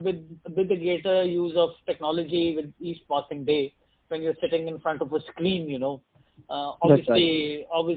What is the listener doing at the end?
listening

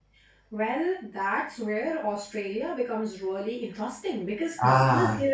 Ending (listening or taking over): listening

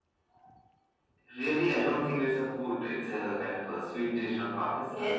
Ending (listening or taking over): taking over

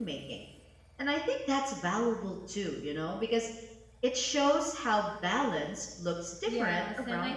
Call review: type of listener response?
taking over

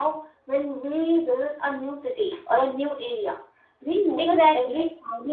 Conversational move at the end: listening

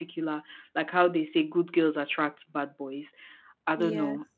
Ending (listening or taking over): listening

